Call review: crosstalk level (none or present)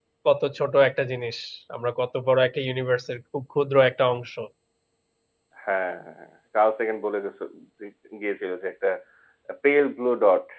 none